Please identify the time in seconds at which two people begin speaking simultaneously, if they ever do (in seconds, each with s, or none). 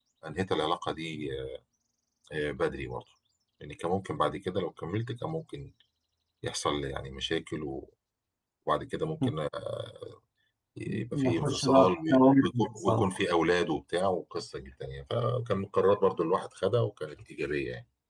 11.1 s